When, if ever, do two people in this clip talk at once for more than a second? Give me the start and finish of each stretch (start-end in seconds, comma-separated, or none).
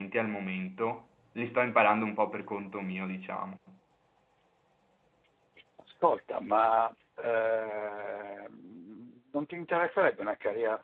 none